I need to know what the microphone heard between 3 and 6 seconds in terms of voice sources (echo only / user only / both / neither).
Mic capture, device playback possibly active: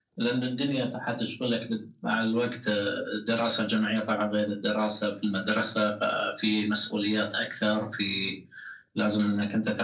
echo only